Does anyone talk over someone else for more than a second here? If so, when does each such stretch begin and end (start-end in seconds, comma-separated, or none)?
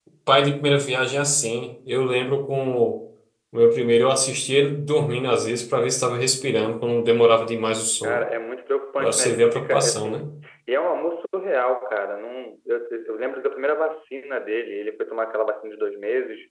9.0-10.3